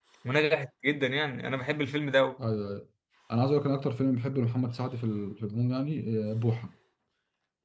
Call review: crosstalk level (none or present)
none